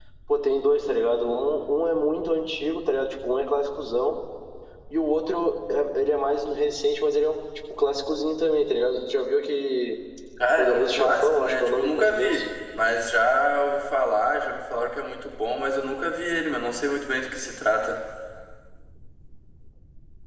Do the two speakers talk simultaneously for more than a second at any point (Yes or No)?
Yes